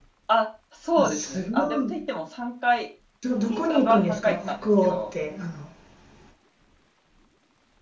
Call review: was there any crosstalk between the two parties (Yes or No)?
Yes